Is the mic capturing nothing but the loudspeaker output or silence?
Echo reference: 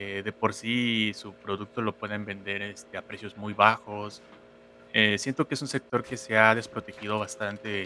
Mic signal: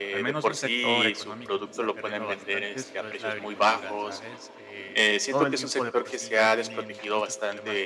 No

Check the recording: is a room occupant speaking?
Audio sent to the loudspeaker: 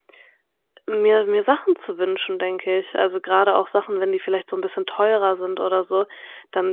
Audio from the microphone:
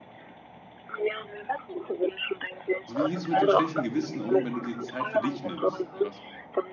Yes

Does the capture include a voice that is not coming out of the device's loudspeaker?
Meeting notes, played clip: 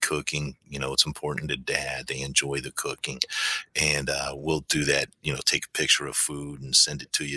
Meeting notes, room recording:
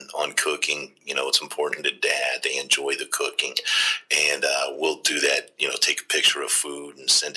No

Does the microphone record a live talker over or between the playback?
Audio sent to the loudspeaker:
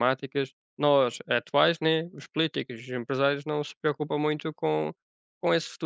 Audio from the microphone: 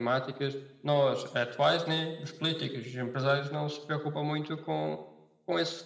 No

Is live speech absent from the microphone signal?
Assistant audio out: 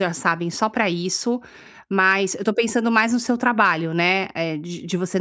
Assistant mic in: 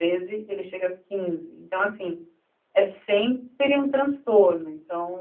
No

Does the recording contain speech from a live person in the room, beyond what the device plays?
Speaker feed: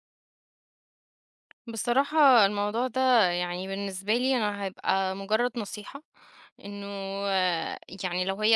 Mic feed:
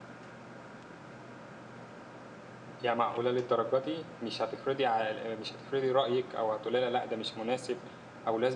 Yes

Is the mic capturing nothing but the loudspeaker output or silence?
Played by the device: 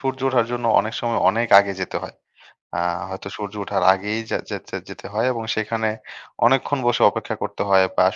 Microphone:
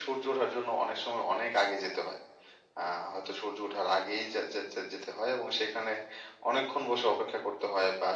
Yes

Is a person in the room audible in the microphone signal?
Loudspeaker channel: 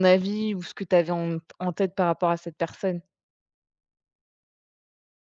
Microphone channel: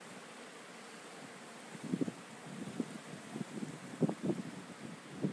No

